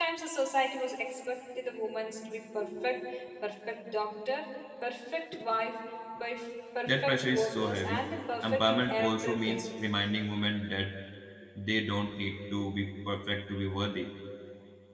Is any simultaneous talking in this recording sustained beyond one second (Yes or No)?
Yes